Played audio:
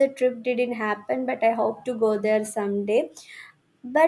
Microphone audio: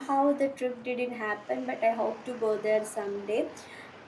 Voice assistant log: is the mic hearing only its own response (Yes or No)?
Yes